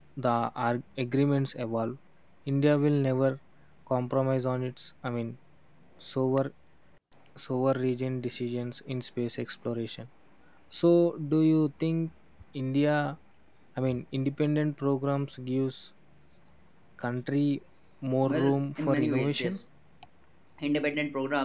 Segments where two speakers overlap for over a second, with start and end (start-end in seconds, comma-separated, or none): 18.2-19.6